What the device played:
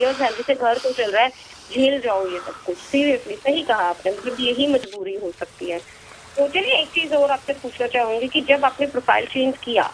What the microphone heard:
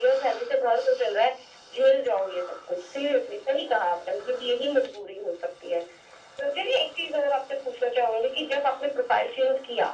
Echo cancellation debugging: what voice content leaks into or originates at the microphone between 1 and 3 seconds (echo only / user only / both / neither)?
echo only